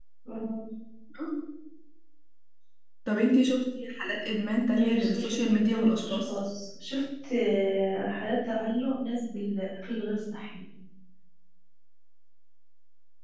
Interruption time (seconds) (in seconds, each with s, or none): 4.7 s